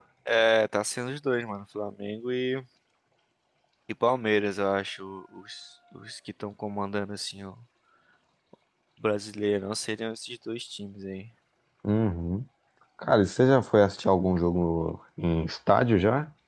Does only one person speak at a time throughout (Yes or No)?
Yes